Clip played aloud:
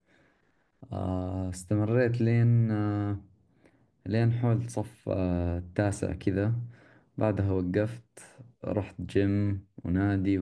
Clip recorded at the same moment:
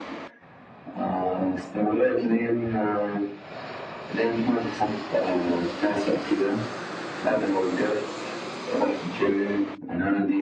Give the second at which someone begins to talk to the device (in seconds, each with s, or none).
none